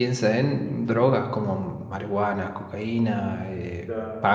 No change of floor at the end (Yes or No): Yes